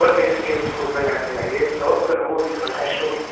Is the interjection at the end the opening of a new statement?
No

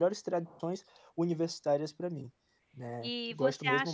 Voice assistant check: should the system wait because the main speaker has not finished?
No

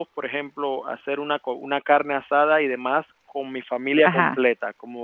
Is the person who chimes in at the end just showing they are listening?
Yes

